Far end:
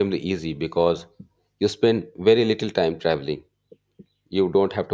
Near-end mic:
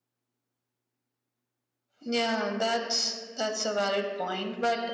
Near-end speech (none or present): present